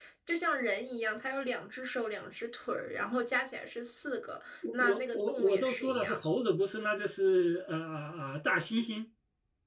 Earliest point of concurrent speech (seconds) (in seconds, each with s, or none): 4.6 s